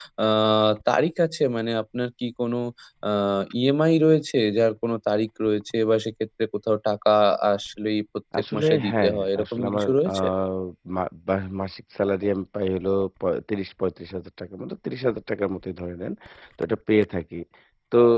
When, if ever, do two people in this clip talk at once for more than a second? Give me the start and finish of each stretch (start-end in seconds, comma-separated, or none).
8.5-10.1